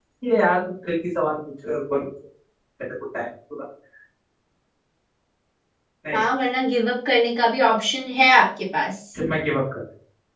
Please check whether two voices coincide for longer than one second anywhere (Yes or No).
No